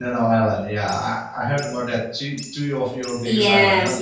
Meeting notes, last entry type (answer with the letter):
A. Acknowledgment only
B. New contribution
B